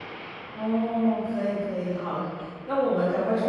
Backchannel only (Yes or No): Yes